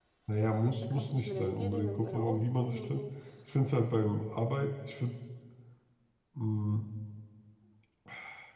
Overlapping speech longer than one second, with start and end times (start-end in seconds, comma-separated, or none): 0.8-3.0